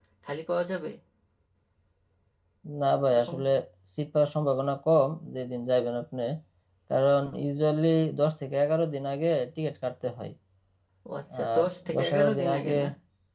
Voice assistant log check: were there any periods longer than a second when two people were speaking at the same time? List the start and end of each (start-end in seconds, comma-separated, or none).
11.3-12.7